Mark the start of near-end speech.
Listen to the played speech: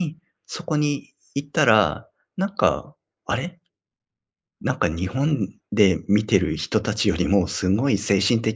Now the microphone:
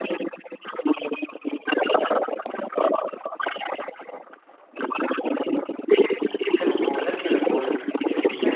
6.6 s

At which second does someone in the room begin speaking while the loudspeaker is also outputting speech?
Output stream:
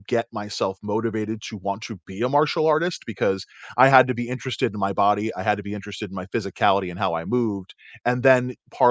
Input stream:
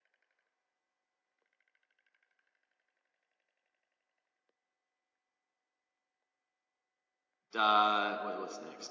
7.6 s

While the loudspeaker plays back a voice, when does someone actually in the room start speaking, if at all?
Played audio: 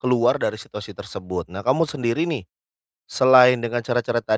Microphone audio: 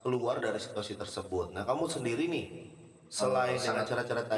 3.2 s

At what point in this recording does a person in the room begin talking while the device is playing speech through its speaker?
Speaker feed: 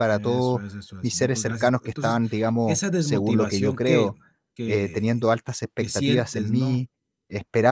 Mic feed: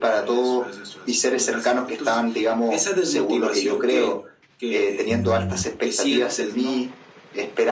5.1 s

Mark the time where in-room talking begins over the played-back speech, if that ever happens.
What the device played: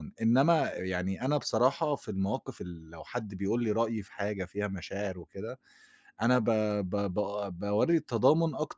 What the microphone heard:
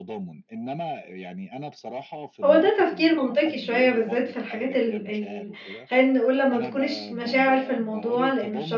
2.4 s

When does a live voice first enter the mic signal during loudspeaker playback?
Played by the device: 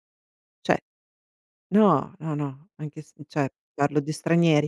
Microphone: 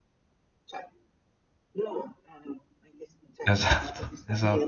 3.4 s

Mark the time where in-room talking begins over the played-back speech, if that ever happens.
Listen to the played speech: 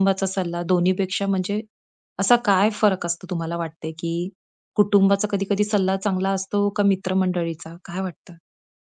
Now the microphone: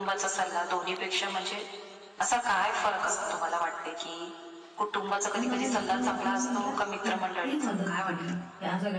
5.3 s

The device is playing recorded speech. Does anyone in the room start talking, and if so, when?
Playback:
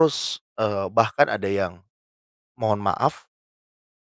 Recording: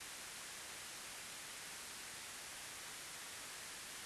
none

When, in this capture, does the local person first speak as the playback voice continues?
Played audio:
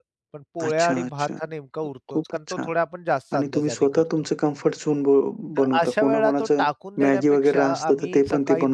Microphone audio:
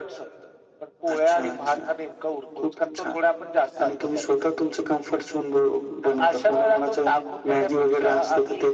none

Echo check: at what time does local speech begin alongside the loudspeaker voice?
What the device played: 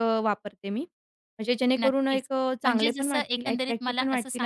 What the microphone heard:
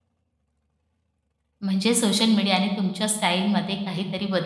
1.6 s

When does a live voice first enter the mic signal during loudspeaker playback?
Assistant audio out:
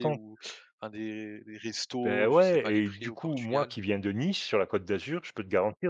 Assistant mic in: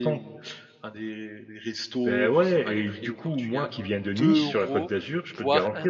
4.2 s

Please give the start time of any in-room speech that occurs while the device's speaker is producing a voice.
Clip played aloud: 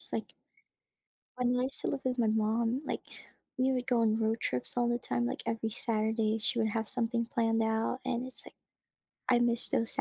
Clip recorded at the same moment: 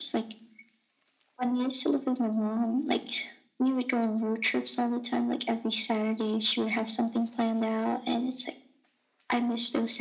none

